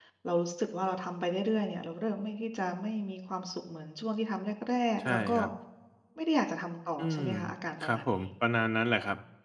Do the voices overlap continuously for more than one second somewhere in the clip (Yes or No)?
No